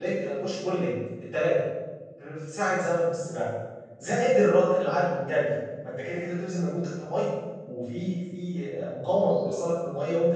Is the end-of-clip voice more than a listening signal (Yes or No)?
No